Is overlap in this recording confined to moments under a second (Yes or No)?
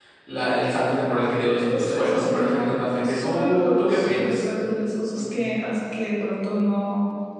No